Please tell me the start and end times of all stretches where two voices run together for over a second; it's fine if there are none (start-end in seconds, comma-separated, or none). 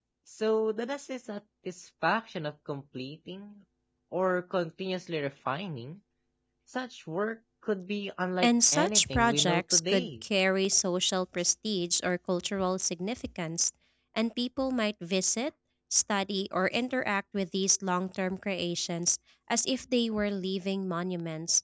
8.4-10.1